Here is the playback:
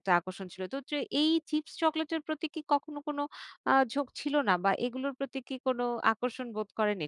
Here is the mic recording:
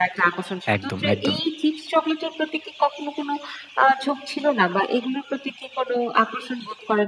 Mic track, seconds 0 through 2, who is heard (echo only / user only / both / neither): both